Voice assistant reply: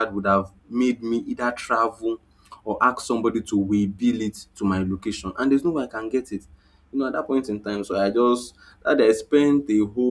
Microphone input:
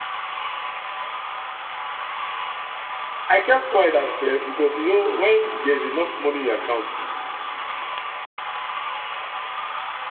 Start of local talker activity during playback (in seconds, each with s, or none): 3.3 s